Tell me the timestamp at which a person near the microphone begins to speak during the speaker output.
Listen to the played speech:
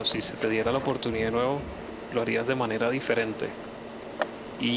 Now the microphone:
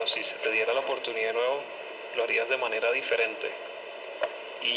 none

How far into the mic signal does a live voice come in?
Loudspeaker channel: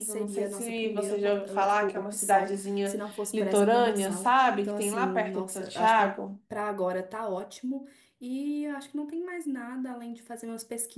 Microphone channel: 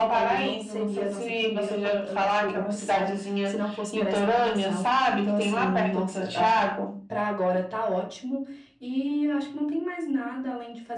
none

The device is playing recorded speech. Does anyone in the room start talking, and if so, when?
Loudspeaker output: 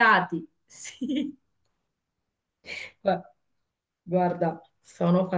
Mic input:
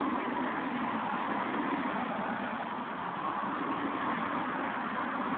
none

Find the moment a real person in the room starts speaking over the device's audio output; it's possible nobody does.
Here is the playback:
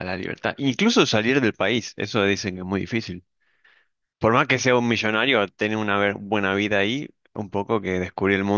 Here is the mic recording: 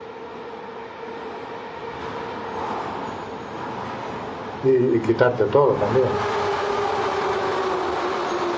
5 s

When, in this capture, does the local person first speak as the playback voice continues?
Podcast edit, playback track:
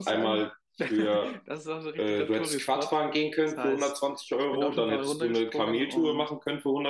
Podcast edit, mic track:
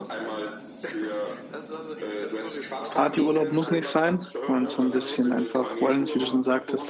3 s

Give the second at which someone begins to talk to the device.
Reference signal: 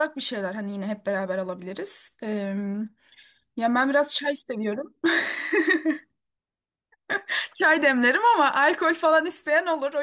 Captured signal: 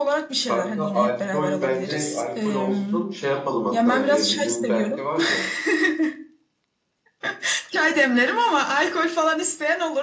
0 s

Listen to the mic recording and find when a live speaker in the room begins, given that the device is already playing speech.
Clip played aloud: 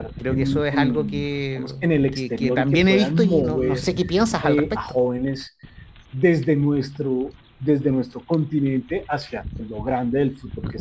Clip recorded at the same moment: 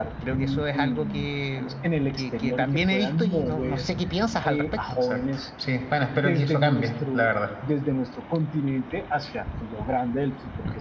5 s

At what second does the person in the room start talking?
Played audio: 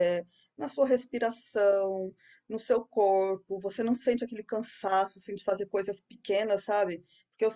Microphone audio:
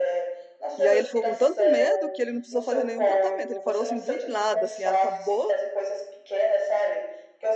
1 s

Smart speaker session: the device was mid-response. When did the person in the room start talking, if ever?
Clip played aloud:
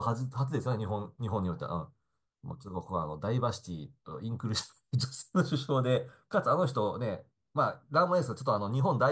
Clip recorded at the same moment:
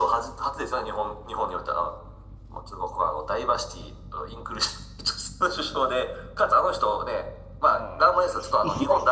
8 s

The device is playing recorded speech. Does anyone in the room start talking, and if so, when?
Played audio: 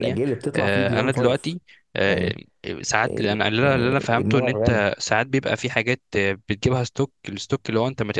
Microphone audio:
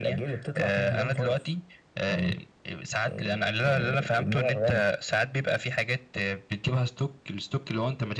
none

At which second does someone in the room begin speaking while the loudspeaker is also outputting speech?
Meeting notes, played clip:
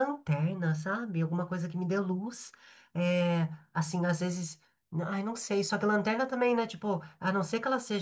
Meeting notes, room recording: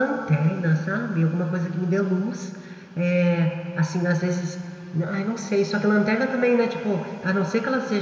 none

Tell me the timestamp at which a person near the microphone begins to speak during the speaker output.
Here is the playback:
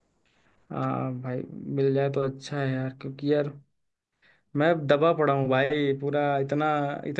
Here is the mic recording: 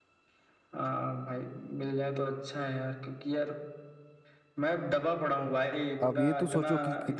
6 s

